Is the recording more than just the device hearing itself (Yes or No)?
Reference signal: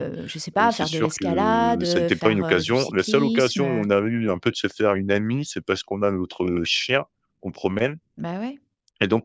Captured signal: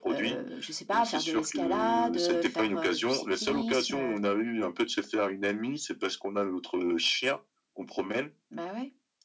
No